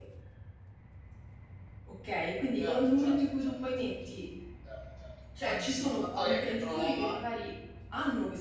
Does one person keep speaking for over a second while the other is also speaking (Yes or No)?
Yes